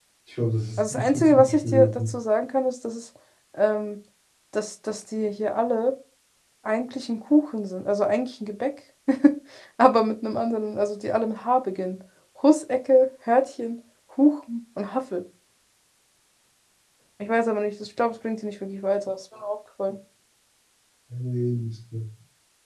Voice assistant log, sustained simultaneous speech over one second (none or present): present